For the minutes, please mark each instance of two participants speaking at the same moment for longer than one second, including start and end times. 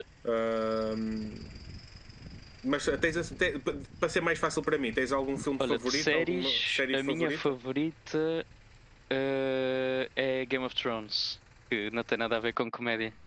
5.6-7.4

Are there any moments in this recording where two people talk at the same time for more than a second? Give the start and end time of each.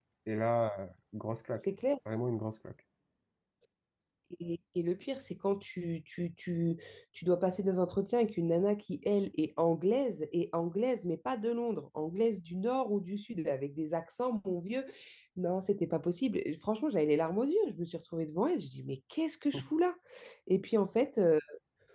none

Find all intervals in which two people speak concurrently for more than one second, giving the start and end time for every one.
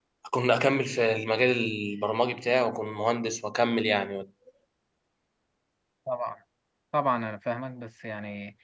none

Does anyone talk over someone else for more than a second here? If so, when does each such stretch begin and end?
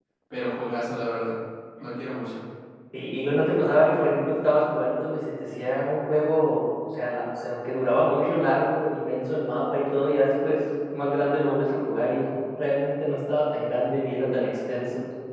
none

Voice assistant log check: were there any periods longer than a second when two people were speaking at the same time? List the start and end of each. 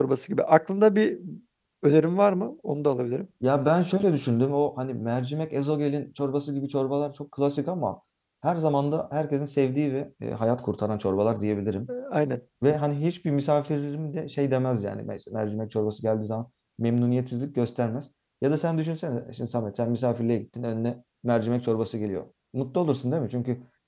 none

